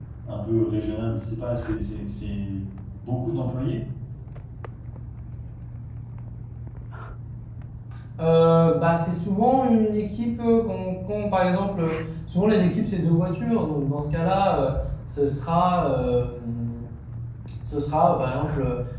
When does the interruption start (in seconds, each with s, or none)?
none